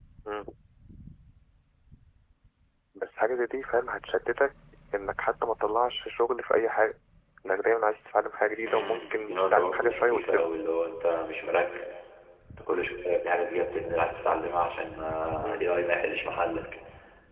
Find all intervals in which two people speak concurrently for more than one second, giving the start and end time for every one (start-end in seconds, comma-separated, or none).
8.5-10.5